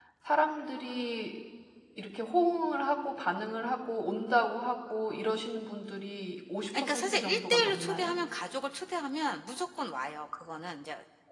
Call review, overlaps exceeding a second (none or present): present